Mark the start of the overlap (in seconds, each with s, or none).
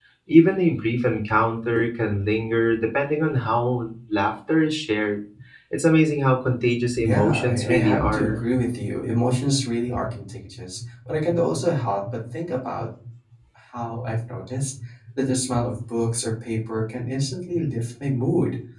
7.0 s